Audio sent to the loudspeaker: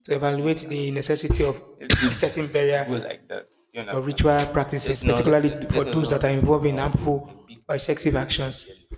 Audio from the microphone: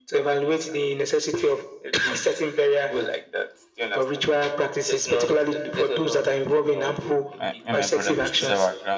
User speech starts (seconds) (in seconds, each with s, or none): 7.3 s